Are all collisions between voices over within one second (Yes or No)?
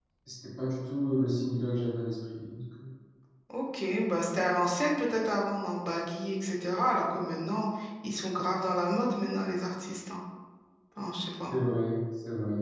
Yes